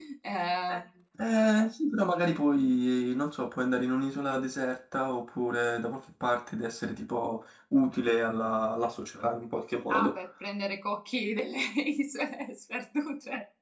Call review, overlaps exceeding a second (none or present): none